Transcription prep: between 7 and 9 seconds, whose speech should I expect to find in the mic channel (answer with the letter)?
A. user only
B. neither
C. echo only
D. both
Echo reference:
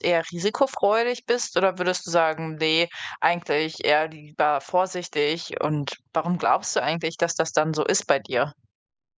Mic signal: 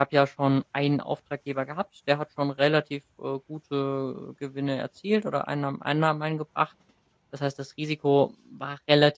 A